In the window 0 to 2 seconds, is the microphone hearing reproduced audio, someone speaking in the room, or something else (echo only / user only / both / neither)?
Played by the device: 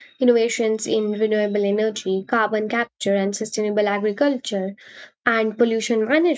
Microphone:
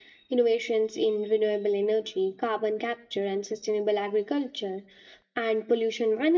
echo only